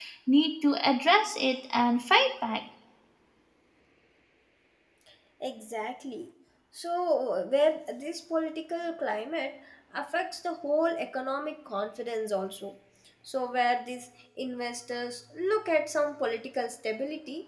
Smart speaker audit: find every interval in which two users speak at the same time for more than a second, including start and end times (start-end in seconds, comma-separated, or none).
none